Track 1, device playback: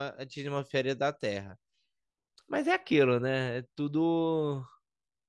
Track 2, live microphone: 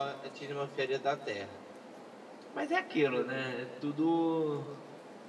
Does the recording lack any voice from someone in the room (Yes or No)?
Yes